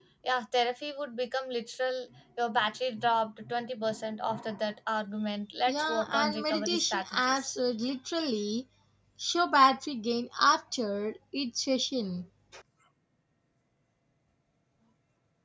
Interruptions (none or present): present